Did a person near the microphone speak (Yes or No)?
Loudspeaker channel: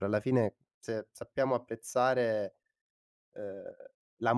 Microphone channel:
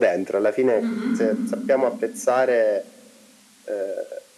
Yes